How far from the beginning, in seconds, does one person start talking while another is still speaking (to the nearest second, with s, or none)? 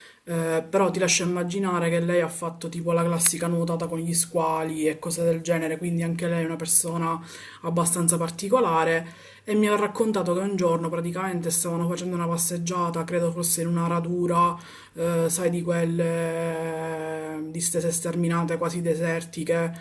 none